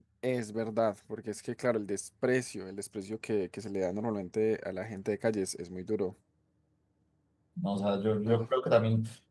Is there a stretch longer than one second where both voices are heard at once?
No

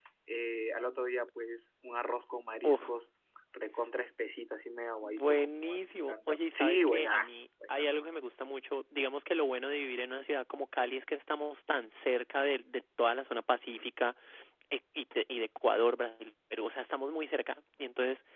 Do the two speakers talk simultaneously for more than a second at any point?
Yes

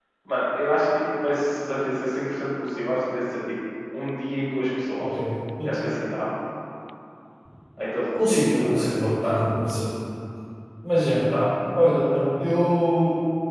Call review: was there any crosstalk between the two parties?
Yes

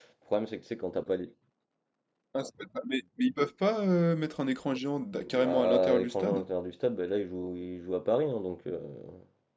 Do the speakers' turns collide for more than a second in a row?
Yes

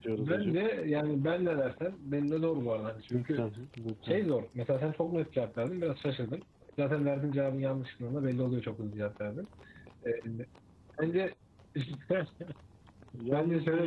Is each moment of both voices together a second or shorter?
Yes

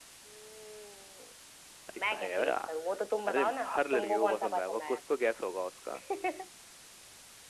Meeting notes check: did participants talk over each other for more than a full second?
Yes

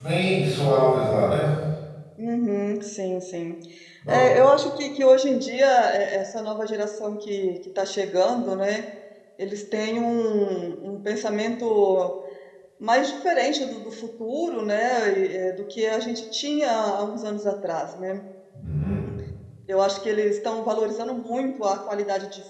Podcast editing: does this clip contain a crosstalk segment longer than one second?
No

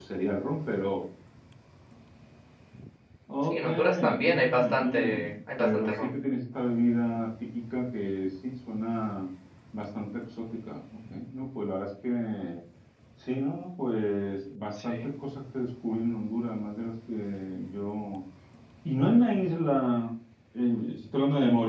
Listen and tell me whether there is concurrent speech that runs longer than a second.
Yes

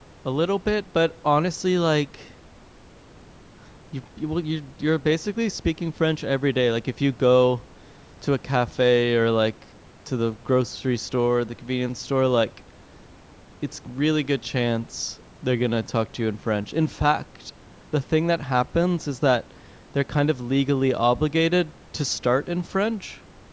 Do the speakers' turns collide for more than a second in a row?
No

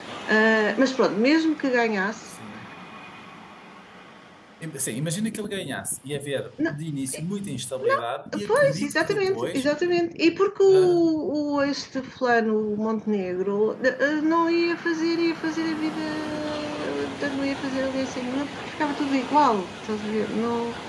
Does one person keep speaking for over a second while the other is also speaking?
Yes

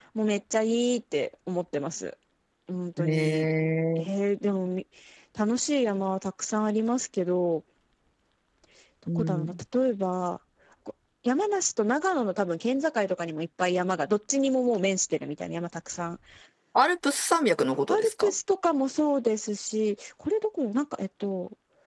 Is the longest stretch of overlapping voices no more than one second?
Yes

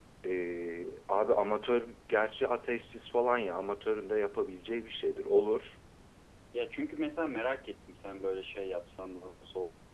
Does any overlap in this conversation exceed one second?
No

